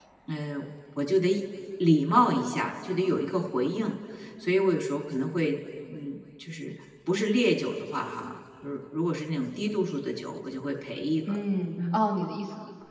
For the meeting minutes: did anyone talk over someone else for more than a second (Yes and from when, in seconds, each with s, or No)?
No